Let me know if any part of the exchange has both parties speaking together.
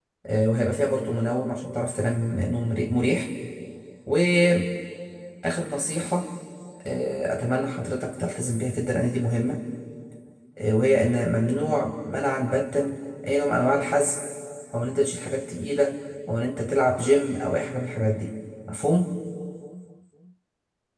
No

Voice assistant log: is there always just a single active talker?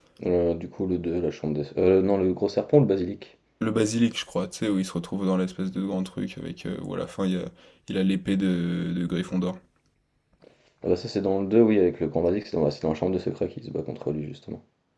Yes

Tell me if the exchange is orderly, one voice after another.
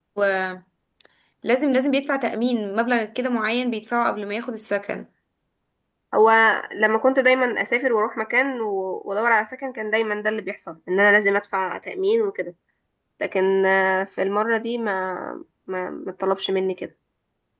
Yes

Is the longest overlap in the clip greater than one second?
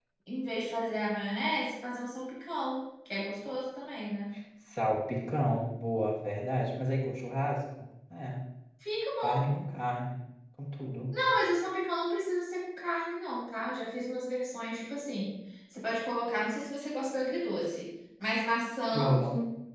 No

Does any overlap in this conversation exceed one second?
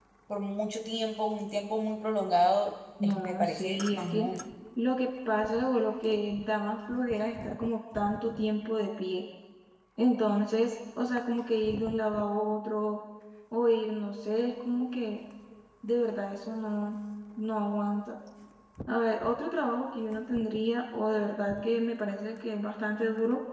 Yes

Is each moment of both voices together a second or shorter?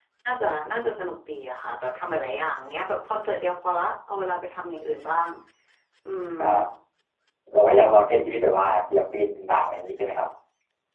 Yes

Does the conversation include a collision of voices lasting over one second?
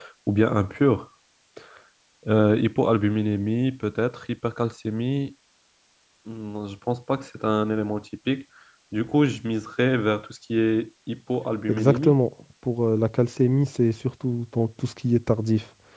No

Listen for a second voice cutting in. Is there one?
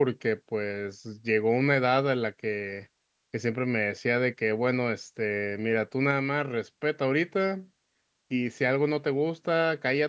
No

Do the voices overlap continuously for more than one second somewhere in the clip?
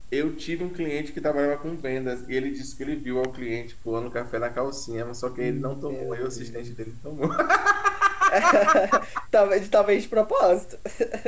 Yes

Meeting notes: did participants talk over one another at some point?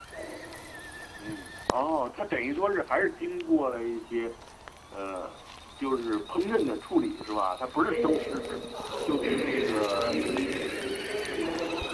Yes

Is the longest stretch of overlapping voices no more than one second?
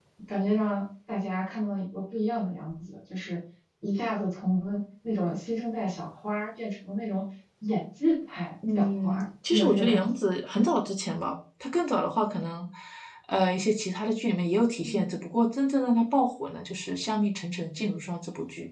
No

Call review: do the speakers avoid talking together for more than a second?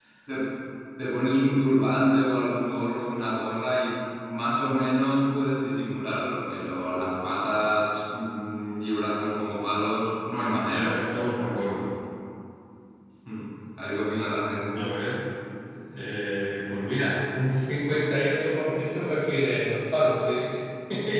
Yes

